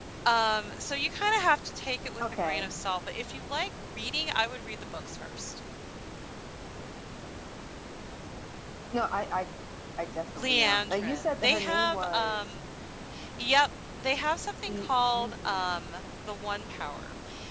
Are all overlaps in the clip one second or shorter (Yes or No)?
No